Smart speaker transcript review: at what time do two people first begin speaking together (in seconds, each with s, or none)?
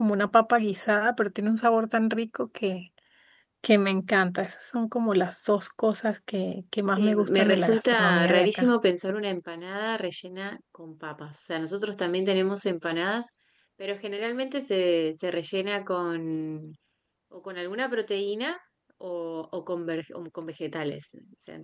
7.0 s